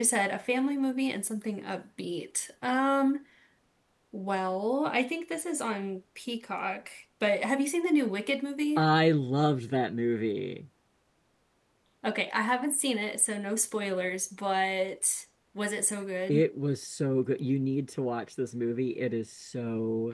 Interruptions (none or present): none